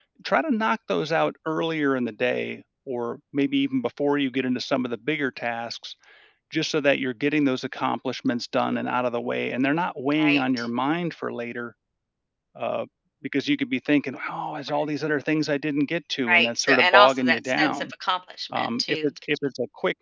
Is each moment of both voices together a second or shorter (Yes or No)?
No